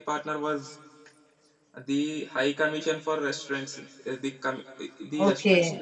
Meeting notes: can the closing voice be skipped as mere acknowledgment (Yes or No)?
No